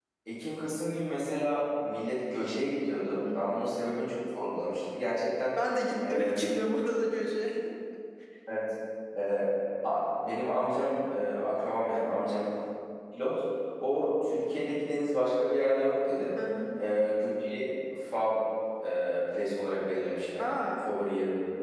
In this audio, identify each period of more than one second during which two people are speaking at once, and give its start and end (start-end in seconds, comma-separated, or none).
none